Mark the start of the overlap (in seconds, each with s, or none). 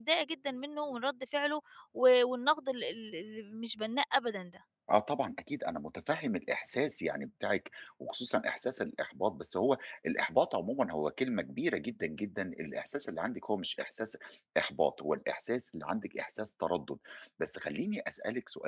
none